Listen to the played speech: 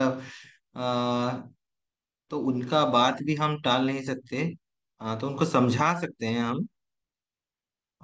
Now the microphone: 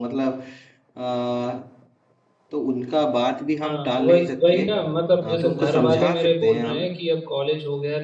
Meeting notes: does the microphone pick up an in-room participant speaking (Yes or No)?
Yes